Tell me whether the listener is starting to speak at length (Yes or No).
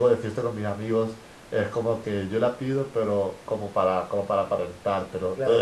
Yes